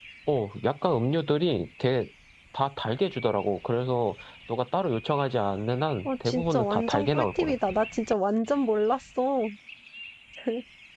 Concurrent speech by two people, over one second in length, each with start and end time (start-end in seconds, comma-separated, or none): 6.0-7.5